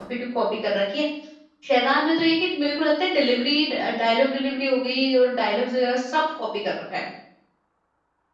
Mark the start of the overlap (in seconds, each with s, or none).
none